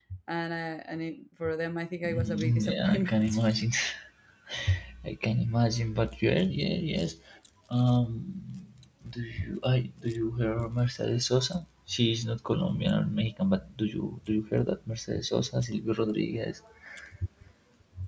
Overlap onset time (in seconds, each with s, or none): 2.0 s